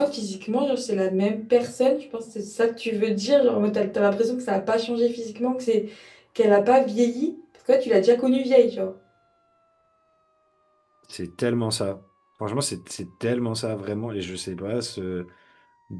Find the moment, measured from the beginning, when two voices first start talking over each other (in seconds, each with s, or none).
none